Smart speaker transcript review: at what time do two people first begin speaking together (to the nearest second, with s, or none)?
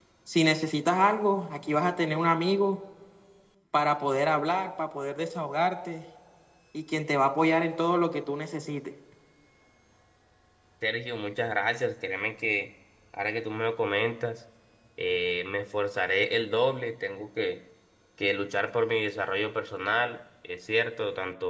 none